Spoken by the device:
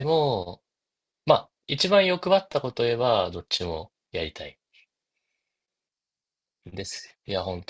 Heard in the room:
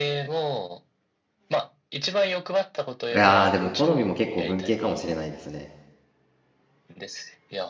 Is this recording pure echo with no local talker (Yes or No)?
No